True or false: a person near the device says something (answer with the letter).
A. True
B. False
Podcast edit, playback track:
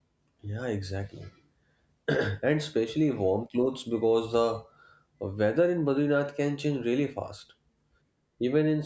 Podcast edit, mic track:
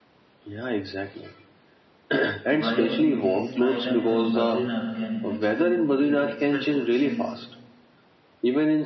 A